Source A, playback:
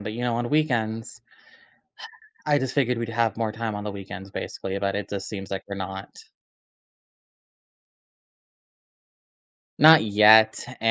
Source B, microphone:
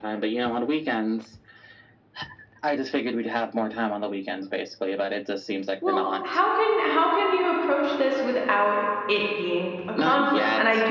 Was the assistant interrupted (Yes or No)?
Yes